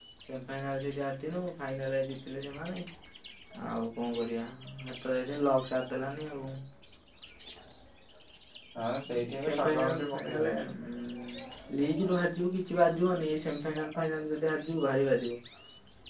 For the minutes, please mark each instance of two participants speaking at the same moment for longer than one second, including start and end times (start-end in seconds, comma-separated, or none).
9.2-10.5